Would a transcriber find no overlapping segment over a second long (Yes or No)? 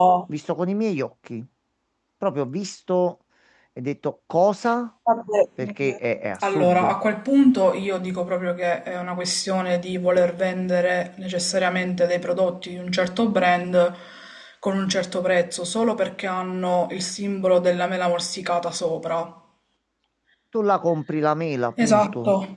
Yes